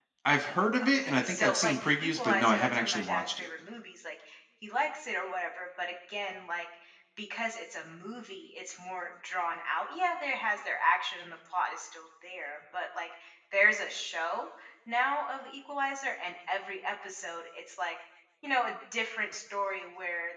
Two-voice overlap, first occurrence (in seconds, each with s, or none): 0.8 s